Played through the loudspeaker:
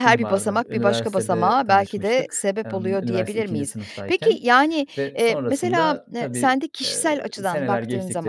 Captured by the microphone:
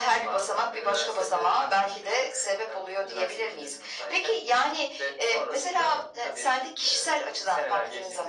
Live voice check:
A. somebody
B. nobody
B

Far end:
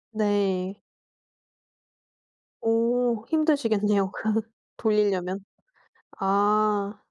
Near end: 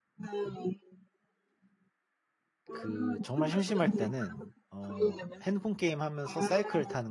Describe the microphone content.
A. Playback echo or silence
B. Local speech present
B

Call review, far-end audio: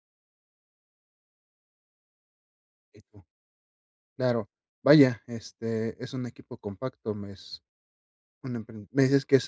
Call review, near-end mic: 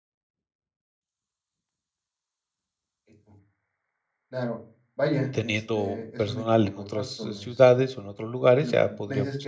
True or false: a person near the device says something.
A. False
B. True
B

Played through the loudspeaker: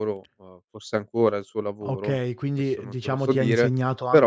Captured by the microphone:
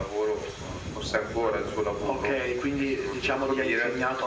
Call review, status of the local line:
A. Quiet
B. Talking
A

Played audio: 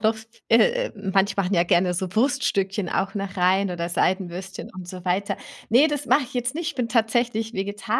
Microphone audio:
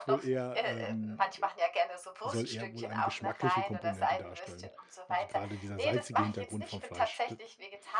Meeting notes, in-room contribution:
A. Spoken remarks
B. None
A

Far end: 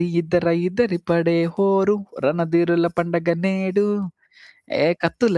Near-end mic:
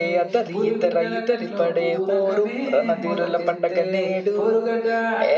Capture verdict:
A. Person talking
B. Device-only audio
A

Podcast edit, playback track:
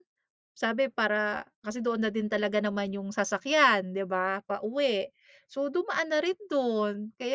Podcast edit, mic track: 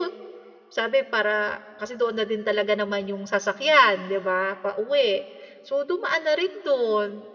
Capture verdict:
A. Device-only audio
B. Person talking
A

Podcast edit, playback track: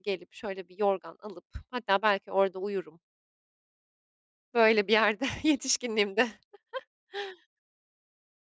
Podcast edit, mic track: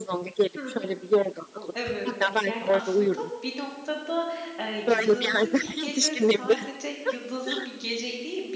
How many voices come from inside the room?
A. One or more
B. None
A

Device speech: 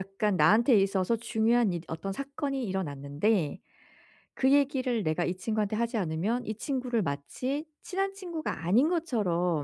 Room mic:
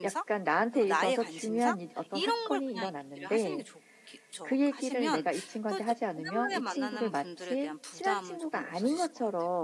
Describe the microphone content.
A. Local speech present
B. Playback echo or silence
A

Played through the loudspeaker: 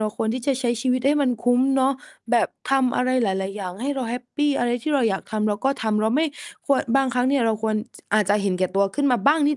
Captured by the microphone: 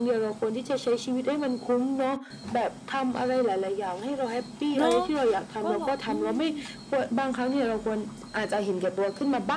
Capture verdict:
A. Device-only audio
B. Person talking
B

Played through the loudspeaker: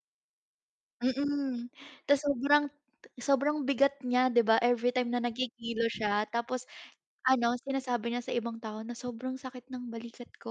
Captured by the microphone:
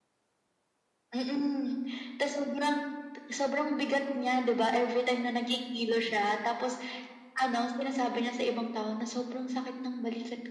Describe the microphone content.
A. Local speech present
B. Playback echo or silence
B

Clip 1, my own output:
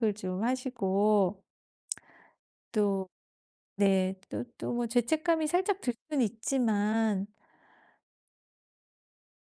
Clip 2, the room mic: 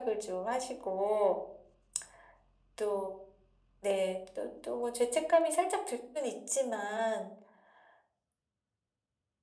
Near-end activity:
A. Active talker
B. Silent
B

